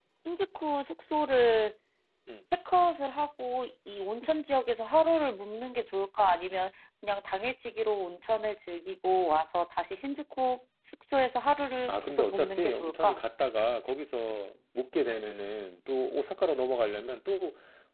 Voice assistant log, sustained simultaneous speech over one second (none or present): present